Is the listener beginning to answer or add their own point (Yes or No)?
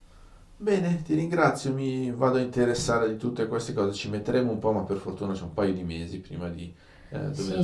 Yes